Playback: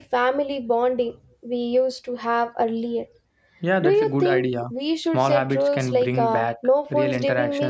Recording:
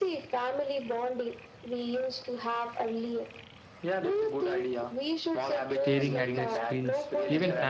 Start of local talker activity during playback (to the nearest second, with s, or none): 6 s